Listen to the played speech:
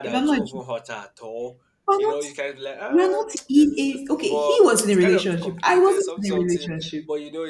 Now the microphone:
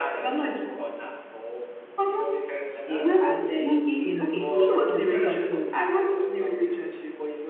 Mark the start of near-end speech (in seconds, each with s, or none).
2.8 s